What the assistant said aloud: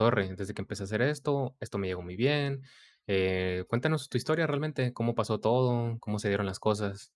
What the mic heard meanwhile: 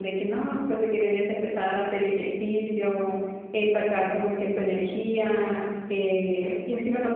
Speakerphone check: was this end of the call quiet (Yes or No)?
No